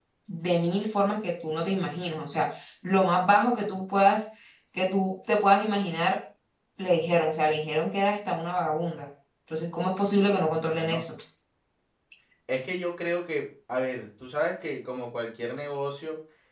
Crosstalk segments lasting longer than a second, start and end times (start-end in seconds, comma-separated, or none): none